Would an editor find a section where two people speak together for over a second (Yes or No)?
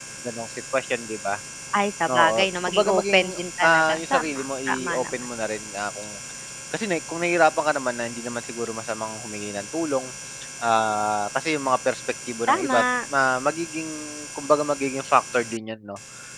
Yes